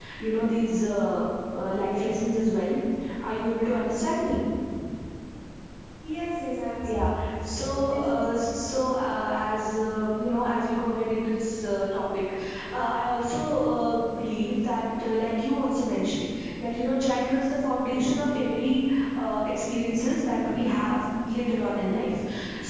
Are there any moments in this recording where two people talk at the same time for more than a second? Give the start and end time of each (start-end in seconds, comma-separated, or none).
6.8-8.4